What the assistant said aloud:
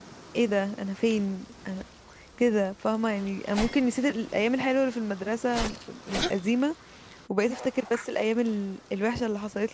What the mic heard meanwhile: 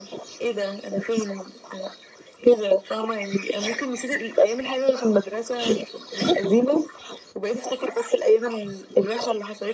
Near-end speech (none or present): none